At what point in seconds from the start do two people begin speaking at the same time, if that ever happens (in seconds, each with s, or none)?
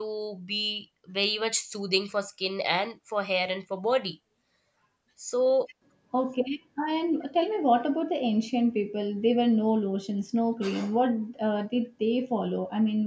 none